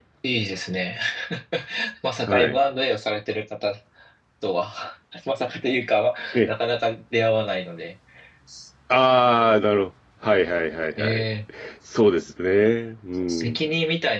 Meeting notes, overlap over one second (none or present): none